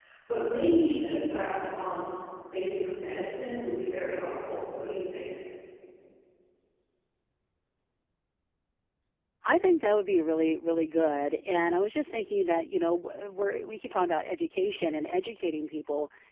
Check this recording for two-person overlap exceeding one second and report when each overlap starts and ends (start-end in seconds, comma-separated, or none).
none